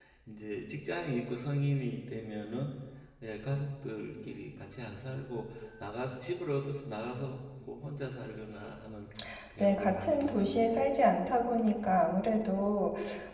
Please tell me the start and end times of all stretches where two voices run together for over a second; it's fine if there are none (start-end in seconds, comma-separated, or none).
9.6-10.8